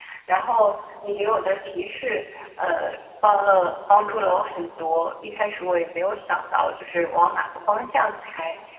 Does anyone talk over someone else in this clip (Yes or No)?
No